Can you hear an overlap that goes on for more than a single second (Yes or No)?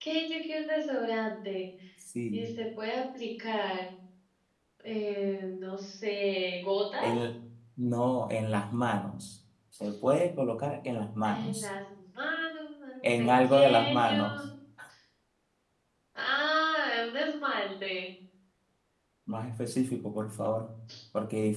Yes